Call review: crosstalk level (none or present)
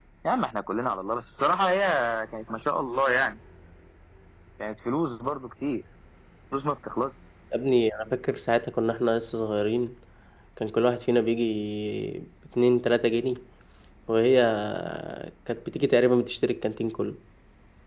none